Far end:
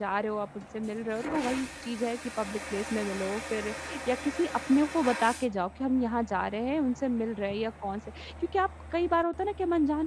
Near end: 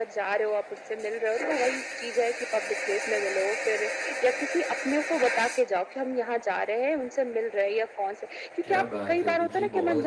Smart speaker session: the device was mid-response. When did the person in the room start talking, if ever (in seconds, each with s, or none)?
8.6 s